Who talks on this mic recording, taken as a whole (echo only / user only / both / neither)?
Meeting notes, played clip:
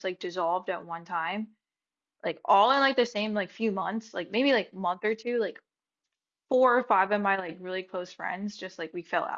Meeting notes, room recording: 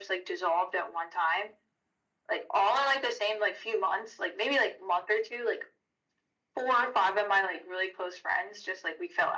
echo only